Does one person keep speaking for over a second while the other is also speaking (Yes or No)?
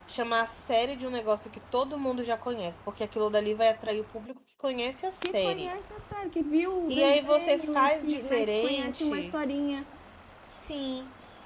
Yes